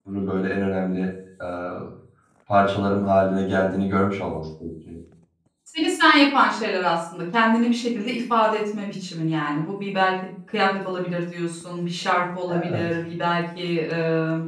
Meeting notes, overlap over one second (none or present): none